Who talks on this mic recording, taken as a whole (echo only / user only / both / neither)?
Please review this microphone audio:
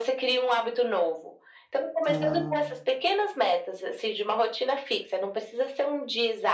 both